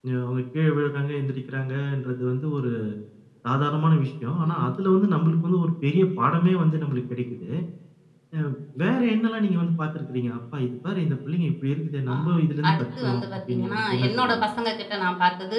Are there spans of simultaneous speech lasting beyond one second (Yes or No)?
Yes